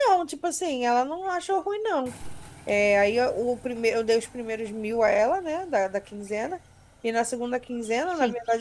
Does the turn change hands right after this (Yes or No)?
No